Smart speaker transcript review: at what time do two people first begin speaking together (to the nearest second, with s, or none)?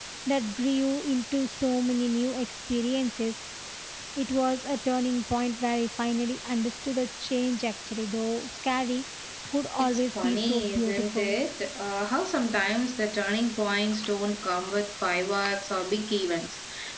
10 s